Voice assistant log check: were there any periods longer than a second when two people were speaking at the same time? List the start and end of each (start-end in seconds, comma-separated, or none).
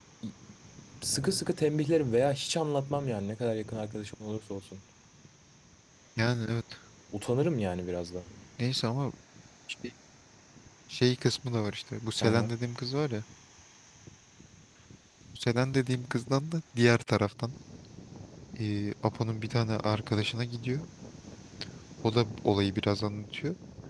none